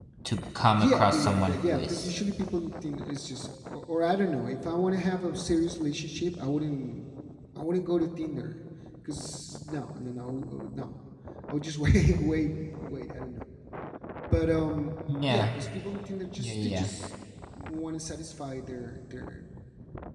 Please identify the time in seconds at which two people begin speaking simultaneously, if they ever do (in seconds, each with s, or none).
0.7 s